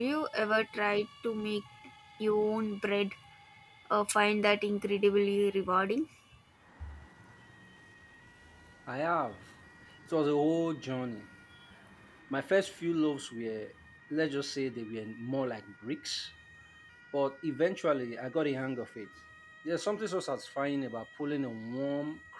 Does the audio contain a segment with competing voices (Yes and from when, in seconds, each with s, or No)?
No